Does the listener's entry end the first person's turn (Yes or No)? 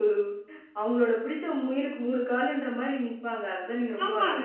Yes